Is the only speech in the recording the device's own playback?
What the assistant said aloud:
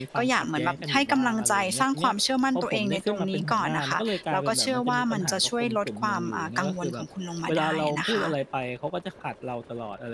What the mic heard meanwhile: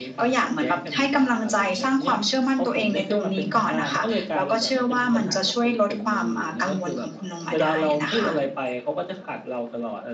Yes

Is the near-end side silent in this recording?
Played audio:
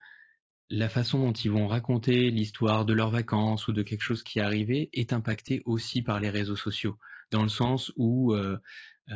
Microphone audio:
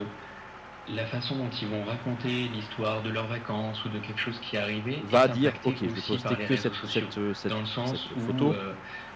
No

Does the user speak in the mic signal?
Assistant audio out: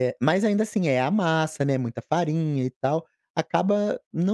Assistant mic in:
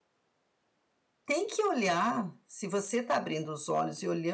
Yes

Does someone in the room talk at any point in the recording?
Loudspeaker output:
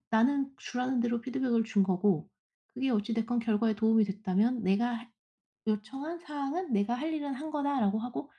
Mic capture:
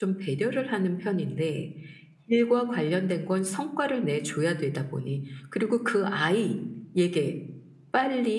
Yes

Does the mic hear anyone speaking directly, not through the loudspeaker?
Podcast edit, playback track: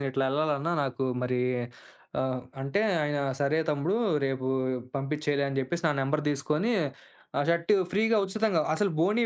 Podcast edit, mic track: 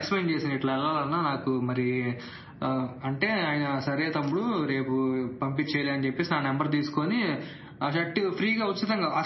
No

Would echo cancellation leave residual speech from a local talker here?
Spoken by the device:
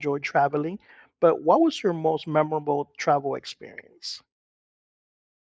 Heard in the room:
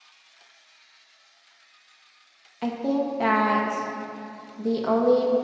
Yes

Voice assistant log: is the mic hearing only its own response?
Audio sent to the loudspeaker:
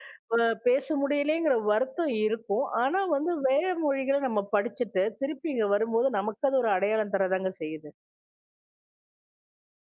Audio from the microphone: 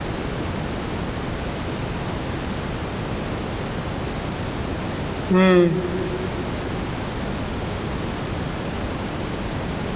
No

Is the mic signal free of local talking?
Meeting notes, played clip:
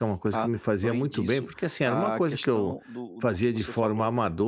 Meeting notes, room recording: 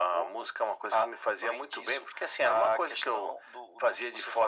Yes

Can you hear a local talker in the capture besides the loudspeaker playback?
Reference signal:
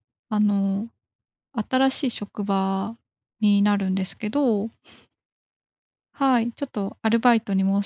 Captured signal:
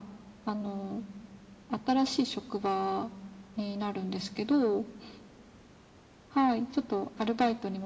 No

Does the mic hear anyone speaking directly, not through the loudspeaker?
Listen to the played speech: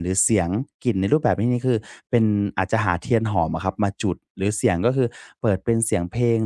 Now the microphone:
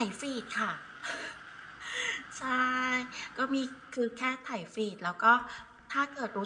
Yes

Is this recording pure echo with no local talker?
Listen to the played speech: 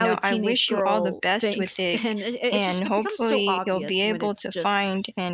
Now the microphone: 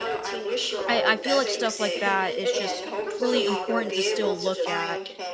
No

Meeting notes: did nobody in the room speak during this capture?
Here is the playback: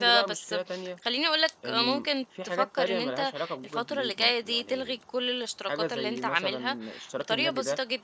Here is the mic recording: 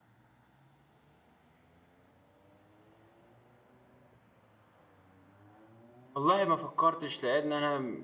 No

